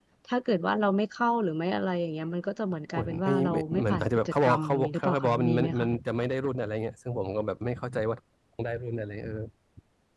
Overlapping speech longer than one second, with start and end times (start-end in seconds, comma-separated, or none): 2.9-5.9